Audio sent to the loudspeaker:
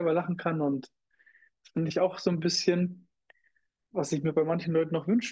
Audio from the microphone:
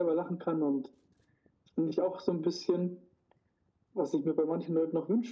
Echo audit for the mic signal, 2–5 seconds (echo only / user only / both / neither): echo only